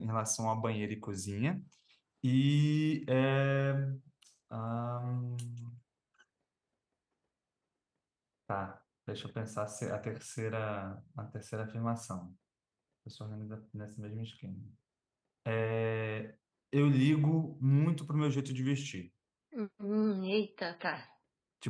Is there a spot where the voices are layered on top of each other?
No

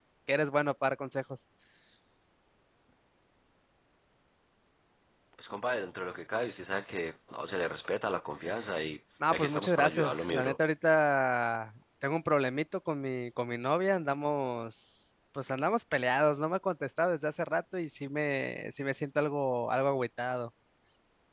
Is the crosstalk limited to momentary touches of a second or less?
No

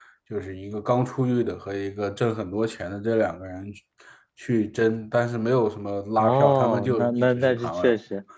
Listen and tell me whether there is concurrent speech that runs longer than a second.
Yes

